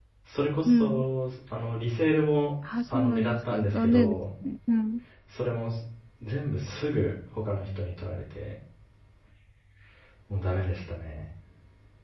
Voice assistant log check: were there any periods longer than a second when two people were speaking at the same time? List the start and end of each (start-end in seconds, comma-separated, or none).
2.7-4.1